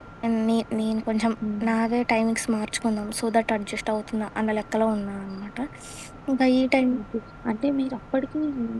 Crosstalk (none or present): none